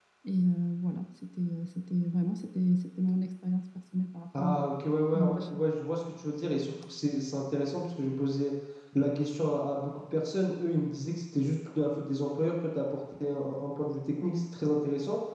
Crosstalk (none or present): present